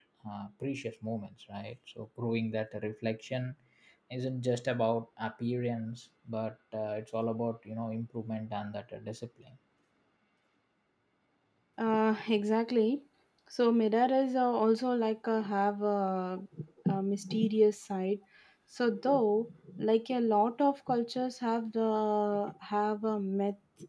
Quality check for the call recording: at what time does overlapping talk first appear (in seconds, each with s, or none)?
none